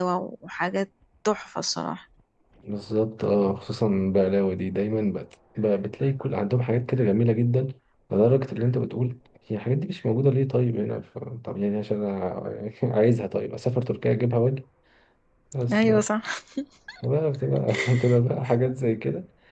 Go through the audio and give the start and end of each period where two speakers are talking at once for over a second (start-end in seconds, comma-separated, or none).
none